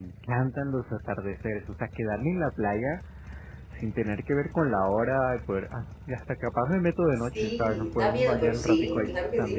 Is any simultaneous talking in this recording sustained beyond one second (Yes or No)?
Yes